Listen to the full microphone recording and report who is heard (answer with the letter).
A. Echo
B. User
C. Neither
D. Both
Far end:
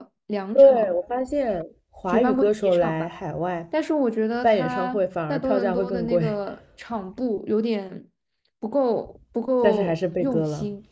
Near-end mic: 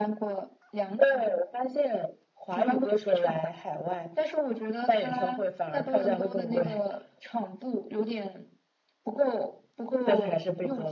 A